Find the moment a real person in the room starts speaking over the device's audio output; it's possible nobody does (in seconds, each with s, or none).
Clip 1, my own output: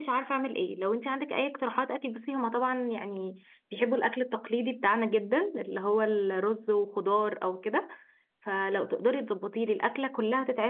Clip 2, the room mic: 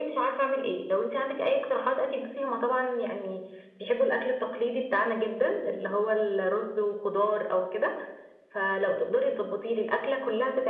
none